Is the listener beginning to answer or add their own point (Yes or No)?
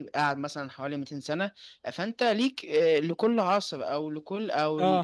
No